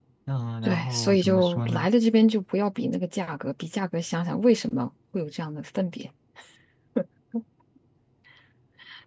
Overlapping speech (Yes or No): Yes